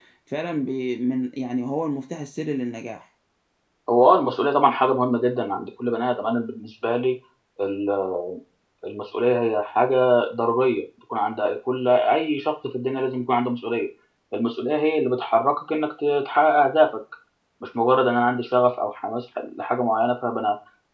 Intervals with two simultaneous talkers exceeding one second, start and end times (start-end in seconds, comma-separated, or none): none